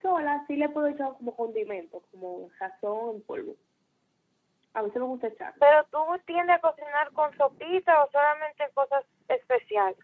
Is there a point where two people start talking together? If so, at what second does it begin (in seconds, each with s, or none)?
none